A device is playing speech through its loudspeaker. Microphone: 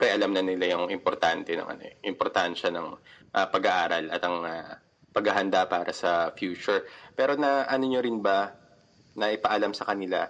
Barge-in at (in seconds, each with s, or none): none